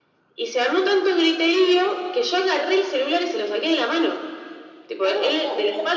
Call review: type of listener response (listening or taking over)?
taking over